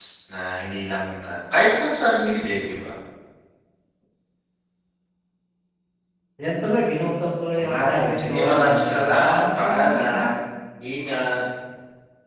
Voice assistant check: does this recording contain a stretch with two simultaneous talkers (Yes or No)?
Yes